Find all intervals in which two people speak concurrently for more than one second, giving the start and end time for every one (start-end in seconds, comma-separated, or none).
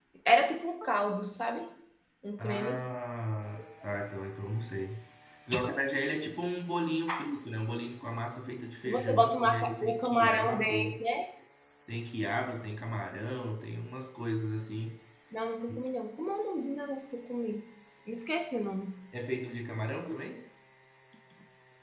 8.8-10.9